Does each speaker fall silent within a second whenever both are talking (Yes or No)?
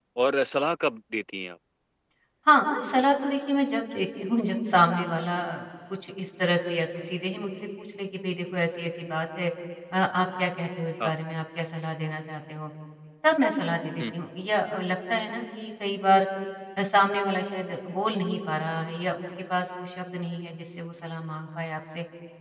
Yes